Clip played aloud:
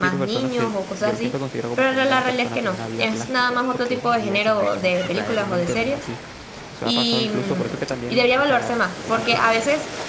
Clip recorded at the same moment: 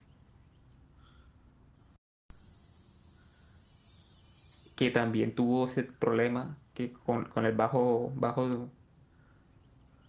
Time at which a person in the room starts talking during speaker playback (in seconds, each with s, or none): 4.7 s